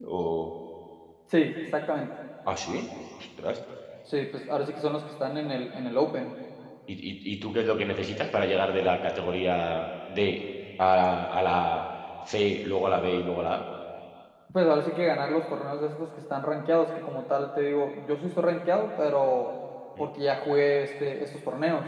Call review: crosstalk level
none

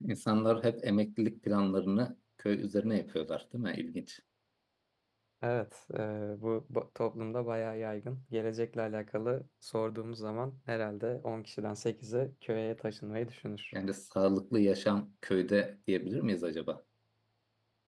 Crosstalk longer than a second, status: none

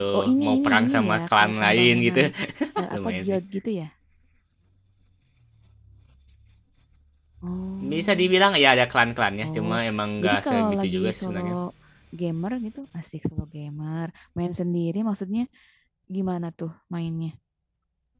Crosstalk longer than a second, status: present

